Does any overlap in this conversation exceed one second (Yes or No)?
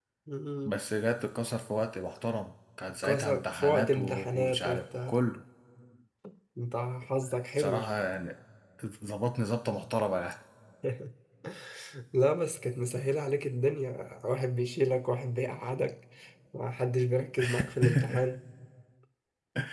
Yes